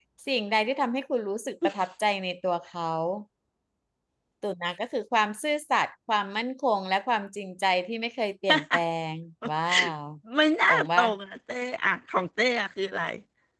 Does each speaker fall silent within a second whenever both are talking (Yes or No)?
Yes